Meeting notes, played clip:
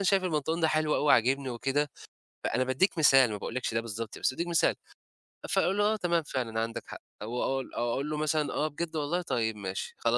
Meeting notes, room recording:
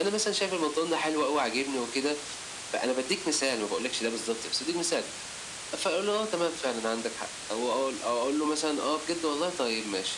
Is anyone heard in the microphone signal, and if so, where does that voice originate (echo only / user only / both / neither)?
echo only